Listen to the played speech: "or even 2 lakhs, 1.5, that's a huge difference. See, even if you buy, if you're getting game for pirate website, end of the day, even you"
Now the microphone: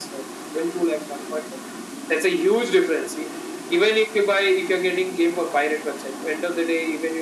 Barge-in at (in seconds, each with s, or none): none